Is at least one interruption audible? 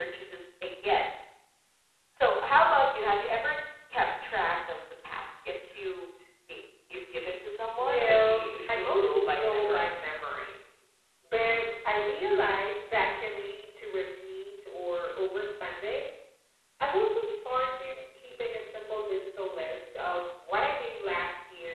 Yes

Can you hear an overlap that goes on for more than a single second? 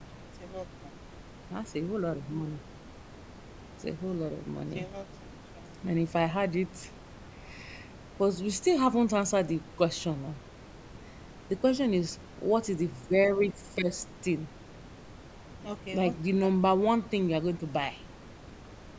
No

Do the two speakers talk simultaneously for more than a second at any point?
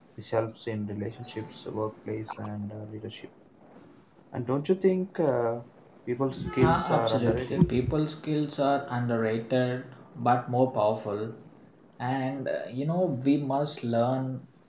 Yes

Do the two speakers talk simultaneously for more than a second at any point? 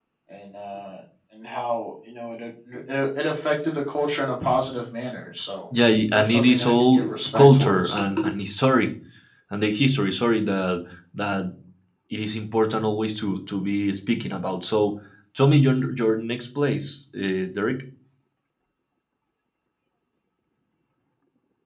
Yes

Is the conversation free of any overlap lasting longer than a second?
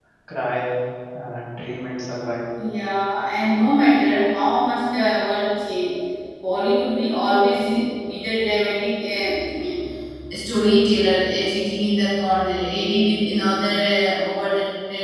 Yes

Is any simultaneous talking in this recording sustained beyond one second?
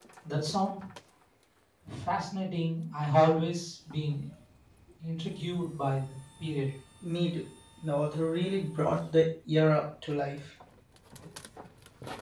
No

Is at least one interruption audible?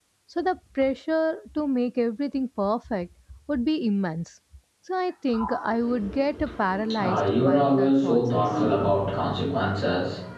Yes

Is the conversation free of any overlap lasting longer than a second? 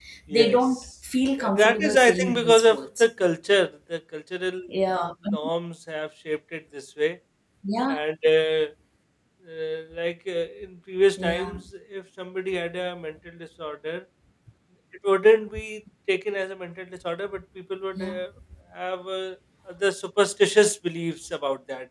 No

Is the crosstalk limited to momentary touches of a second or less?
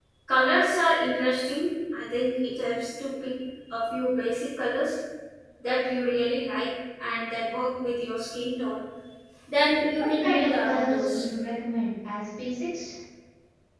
No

